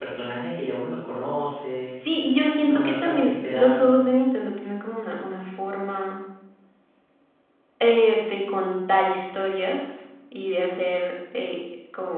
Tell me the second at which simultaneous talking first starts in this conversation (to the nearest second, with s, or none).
3 s